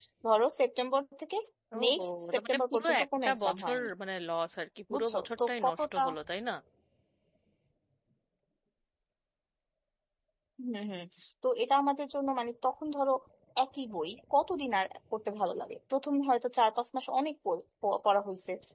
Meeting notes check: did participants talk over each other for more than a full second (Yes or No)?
Yes